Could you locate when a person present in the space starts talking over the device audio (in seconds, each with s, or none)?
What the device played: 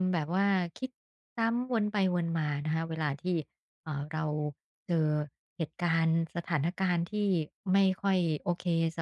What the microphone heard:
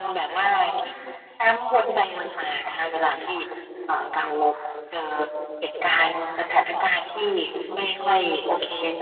none